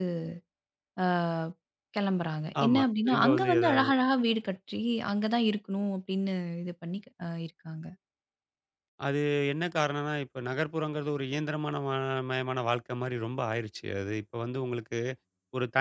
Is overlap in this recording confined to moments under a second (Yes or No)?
No